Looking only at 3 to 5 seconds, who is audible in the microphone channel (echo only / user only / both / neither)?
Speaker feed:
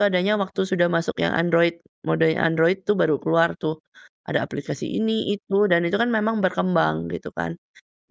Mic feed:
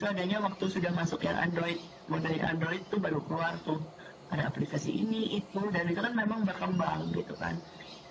echo only